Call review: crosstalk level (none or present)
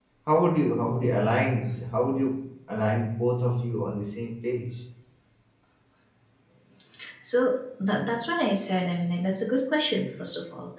none